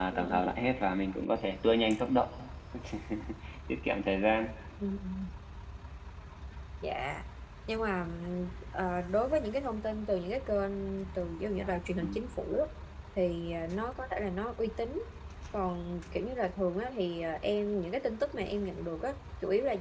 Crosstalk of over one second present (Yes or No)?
No